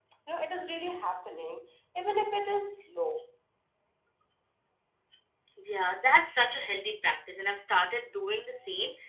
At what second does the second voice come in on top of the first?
none

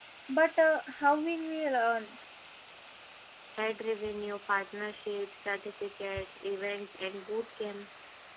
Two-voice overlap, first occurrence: none

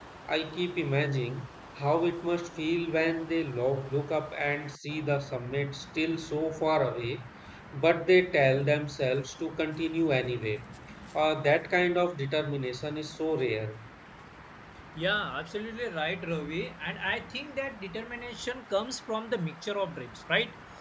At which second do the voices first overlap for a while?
none

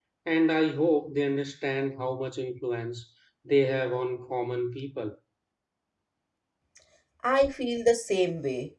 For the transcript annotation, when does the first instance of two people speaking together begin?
none

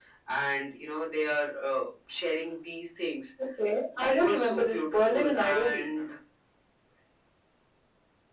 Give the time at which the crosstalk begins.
4.0 s

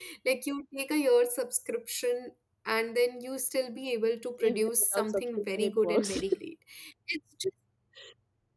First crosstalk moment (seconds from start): 4.4 s

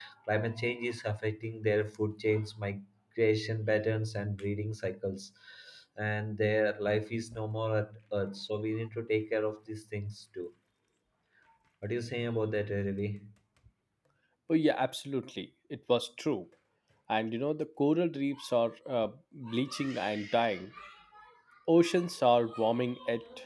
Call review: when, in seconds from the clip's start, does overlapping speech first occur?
none

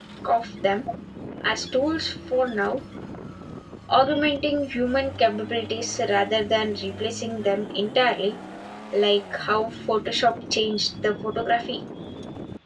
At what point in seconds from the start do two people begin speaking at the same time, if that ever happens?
none

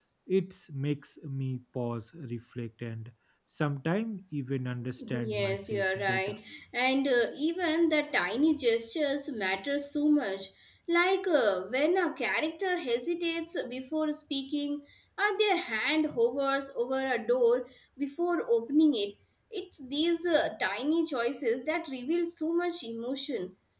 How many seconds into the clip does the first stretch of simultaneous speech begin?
5.0 s

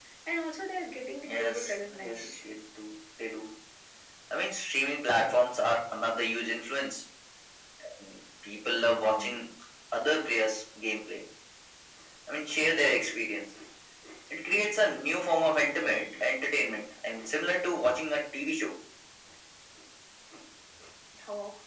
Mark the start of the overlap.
1.2 s

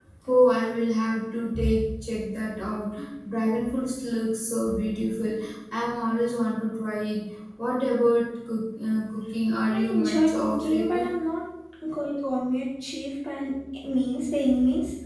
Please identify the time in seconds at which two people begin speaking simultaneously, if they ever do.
9.7 s

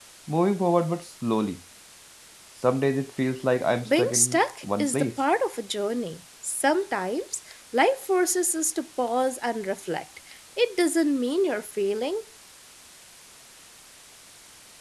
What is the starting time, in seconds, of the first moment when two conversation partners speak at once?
3.8 s

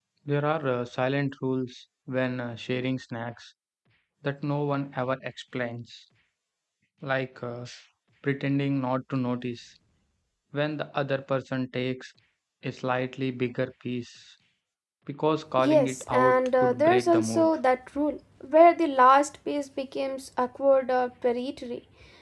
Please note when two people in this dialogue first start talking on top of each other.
15.7 s

